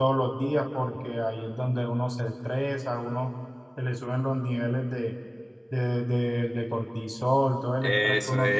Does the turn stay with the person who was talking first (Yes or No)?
No